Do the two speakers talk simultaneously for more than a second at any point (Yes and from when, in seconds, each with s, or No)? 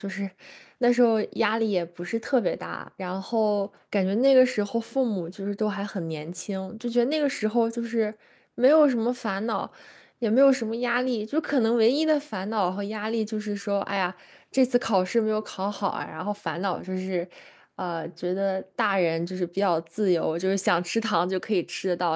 No